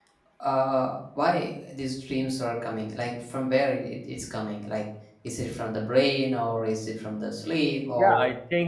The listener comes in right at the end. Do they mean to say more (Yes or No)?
Yes